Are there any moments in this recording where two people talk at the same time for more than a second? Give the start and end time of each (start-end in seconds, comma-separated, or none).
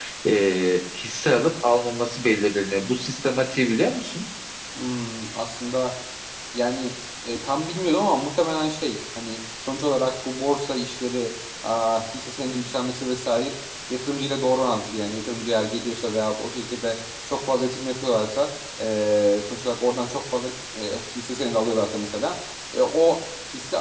none